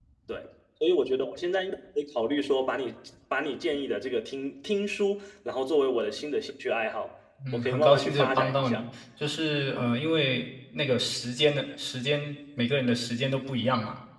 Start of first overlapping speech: 7.4 s

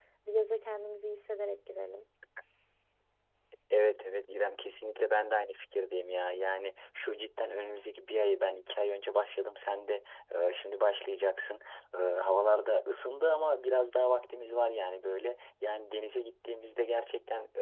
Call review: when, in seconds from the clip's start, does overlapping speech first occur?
none

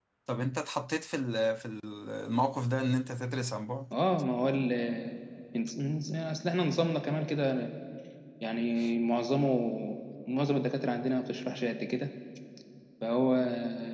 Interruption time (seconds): none

